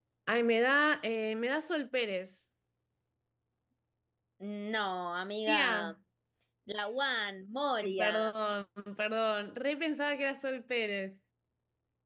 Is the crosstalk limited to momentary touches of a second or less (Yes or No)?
Yes